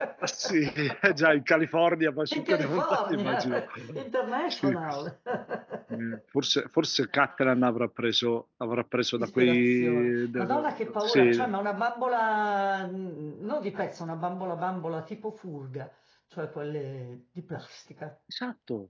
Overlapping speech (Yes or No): Yes